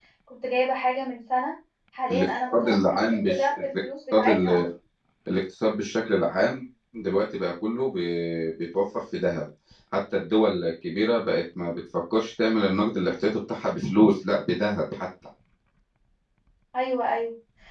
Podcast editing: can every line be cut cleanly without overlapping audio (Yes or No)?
No